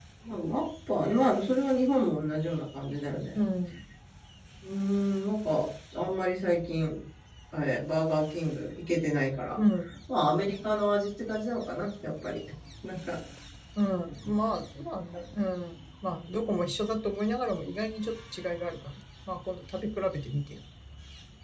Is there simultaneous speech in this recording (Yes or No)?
No